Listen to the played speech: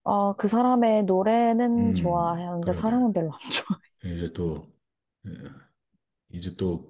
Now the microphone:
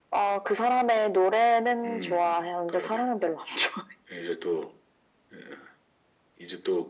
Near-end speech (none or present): none